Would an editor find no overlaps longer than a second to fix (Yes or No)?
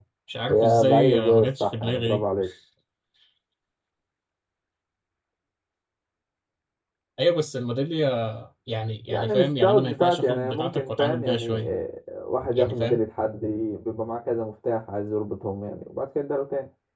No